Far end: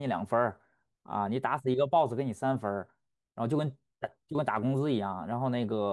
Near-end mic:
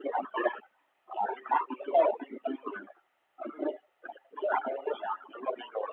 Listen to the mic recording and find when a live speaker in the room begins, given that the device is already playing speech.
none

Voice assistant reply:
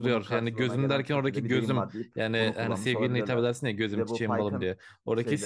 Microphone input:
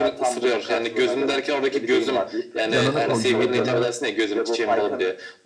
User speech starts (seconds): 2.6 s

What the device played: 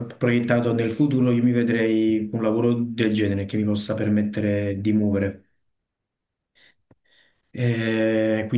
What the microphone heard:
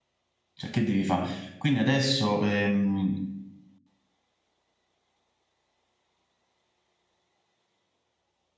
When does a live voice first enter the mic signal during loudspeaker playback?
0.5 s

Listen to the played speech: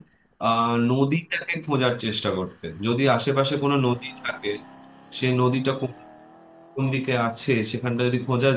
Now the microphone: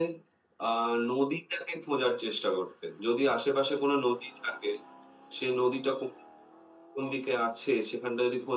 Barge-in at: none

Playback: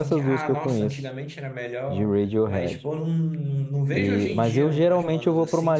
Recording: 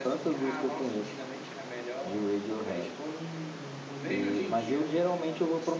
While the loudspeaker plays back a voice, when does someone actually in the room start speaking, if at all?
none

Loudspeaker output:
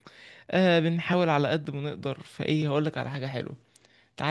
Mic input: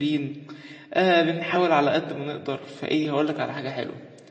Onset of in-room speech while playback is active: none

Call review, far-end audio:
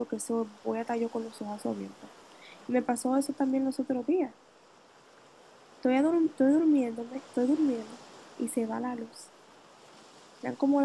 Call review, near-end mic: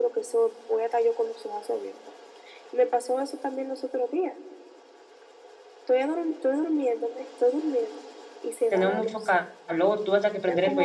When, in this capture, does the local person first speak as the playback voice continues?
8.7 s

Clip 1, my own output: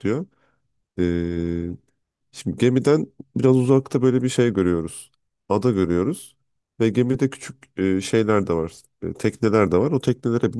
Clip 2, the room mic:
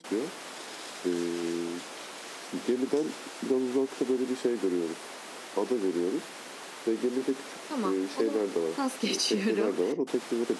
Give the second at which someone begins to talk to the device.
7.6 s

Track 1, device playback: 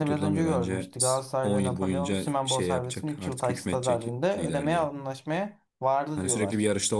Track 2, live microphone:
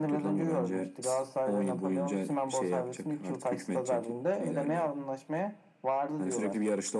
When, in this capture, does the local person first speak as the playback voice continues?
none

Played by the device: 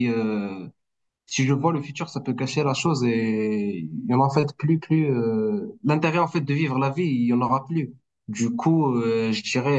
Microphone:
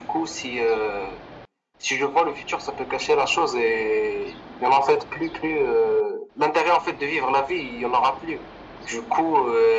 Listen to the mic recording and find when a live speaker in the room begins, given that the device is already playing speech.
none

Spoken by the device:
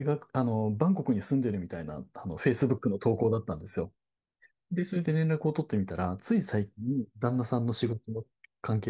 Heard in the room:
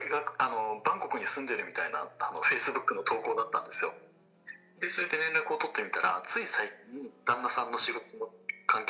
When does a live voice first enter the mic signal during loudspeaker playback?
none

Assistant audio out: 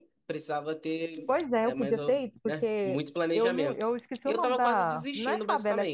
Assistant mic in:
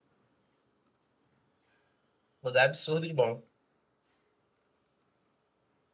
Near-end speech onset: 2.4 s

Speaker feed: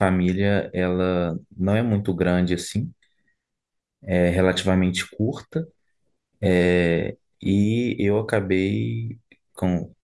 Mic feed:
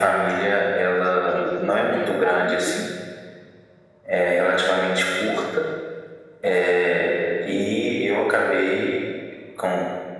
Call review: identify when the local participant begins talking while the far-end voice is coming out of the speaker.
0.9 s

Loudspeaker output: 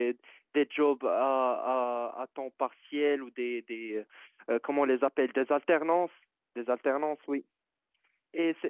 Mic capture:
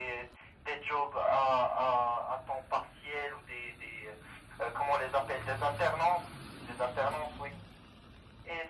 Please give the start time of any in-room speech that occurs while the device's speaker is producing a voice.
none

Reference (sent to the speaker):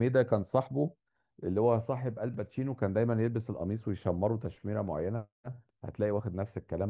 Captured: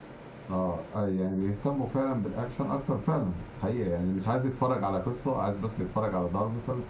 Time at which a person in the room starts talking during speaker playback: 0.5 s

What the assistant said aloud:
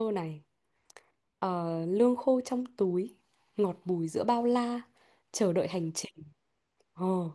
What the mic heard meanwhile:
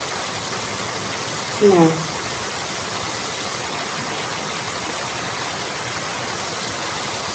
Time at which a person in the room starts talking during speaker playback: 1.5 s

